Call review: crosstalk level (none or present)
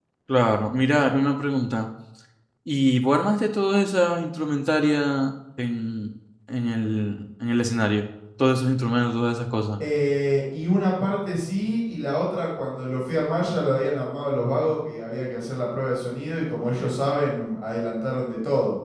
none